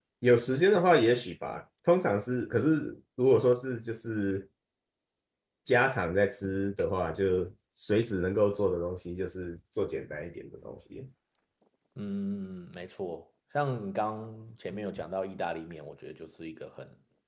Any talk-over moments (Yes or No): No